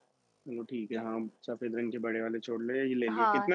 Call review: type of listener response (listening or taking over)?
taking over